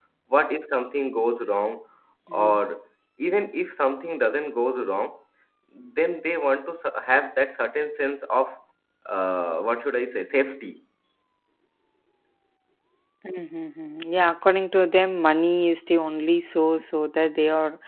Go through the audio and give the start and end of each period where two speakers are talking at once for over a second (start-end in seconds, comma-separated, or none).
none